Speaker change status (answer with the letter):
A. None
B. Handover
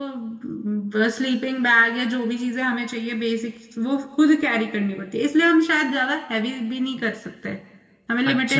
B